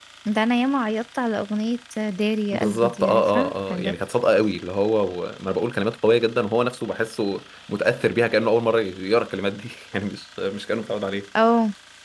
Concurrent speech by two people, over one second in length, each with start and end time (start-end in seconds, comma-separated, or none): 2.5-3.9